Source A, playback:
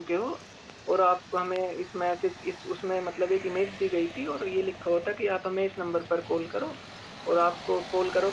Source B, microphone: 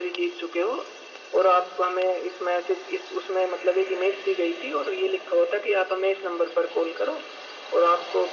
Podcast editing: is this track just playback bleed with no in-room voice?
Yes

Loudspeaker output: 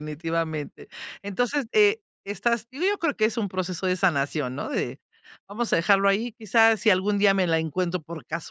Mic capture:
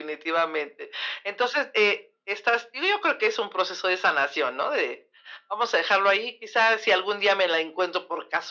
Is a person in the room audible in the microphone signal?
No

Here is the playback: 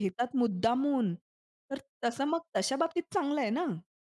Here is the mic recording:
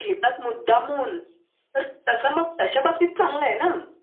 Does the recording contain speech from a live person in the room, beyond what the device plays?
No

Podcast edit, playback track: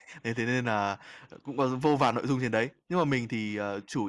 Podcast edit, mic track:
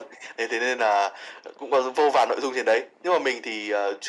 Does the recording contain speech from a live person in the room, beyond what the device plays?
No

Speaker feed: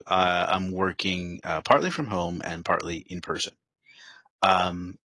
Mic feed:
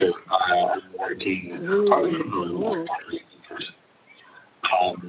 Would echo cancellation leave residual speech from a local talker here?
Yes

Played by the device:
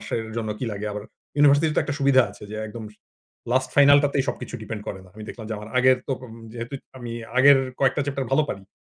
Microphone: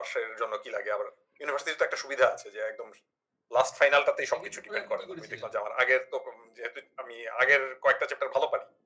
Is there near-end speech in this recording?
Yes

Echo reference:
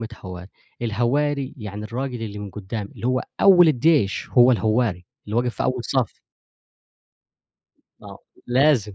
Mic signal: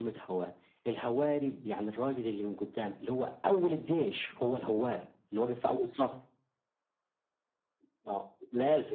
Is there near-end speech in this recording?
No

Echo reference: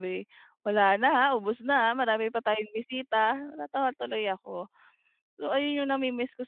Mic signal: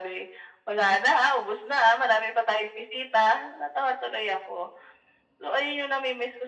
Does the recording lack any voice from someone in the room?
Yes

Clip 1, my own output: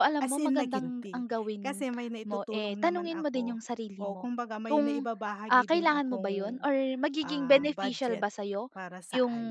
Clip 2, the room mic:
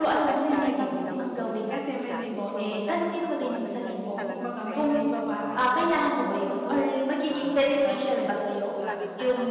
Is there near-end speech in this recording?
Yes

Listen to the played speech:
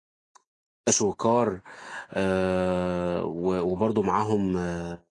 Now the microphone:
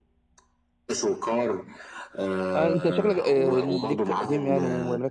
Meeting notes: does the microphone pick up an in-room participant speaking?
Yes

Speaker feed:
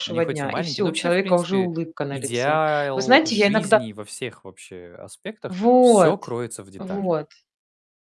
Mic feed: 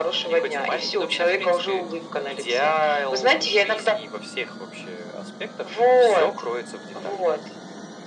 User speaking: No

